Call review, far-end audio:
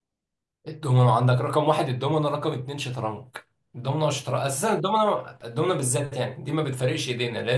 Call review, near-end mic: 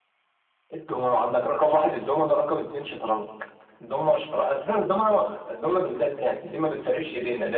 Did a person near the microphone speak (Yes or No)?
No